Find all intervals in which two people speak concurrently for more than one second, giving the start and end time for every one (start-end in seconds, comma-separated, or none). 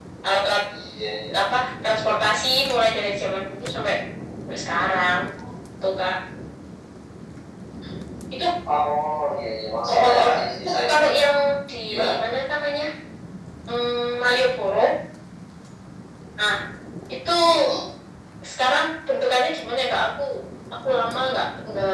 9.9-11.3